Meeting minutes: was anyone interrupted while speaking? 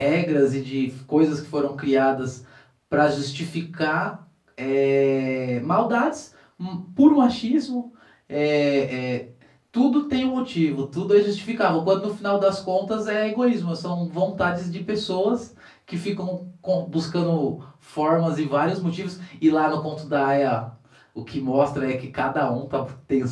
No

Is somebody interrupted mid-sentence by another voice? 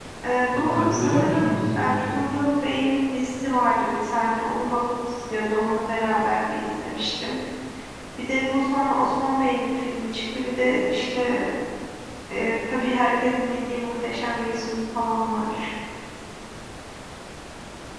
Yes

